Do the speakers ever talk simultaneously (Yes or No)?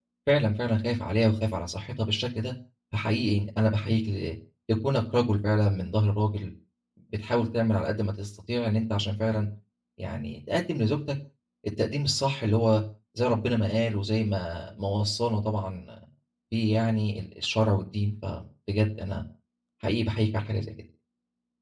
No